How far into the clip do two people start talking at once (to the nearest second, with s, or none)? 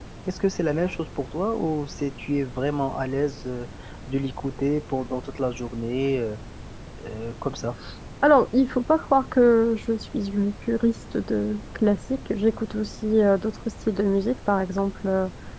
none